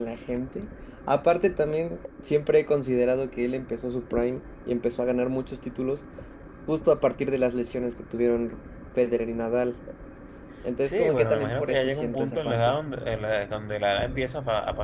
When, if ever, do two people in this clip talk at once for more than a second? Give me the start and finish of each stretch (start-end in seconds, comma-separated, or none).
10.8-12.7